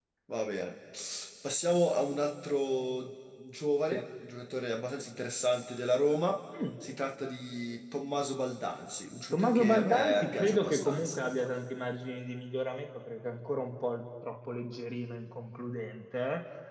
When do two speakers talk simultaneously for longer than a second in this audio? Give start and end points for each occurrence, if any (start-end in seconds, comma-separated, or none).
9.3-11.5